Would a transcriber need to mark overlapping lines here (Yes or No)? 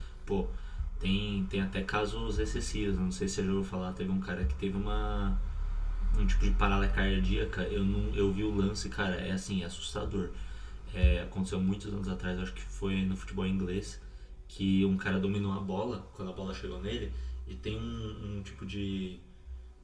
No